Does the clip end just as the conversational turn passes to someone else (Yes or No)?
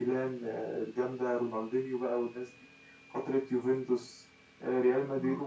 No